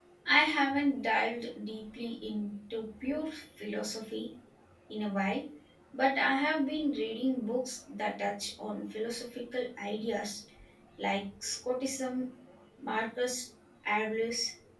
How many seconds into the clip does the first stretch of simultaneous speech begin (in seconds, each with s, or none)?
none